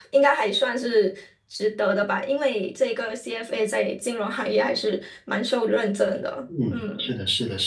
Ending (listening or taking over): taking over